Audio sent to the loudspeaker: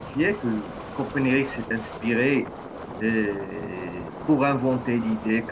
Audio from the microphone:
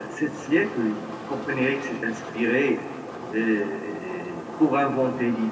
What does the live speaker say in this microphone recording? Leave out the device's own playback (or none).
none